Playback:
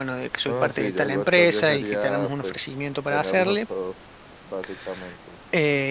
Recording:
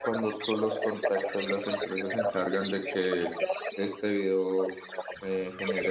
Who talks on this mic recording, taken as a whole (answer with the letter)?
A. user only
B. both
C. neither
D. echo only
B